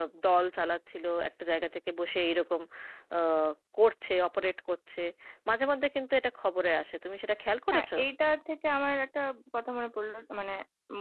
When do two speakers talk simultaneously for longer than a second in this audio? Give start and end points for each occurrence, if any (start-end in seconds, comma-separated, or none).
none